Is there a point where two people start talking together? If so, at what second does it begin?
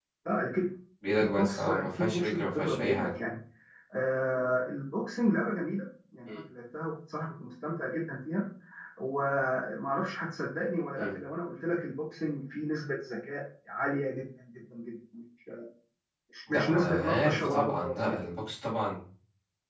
1.1 s

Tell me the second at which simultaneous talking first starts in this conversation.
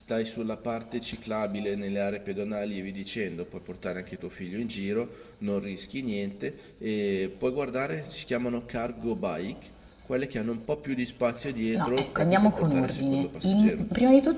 11.7 s

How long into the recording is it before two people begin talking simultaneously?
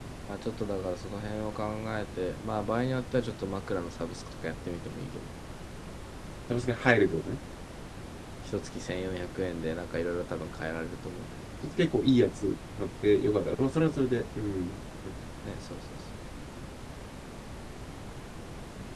none

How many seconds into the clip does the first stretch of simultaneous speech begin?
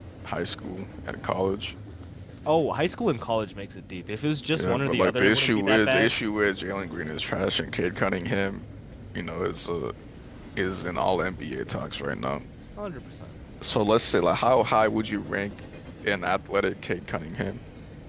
4.5 s

